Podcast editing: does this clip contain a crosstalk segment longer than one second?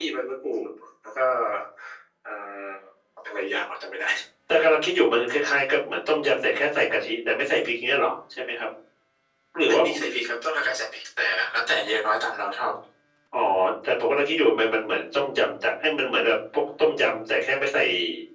No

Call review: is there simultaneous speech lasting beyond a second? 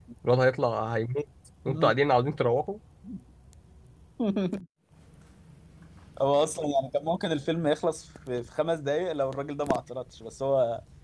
No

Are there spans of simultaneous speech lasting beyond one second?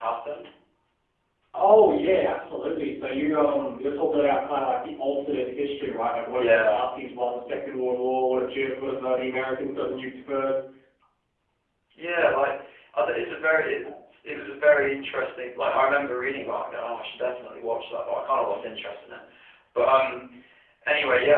No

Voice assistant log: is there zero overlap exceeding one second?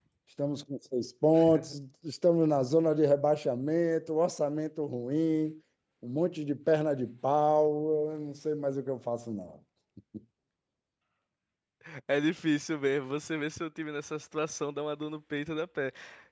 Yes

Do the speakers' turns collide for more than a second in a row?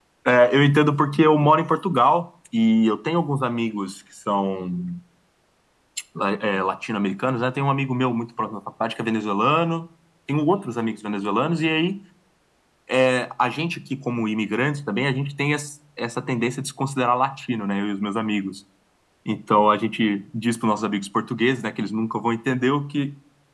No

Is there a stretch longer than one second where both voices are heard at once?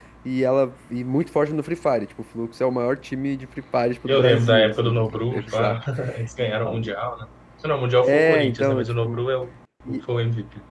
Yes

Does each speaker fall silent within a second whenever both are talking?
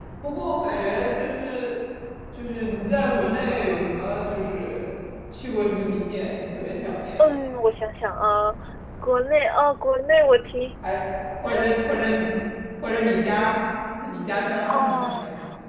Yes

